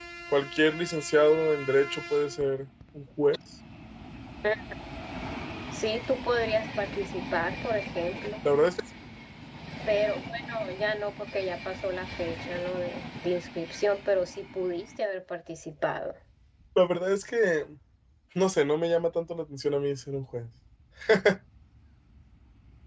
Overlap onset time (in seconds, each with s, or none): none